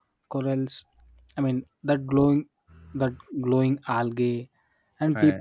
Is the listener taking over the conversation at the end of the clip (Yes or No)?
No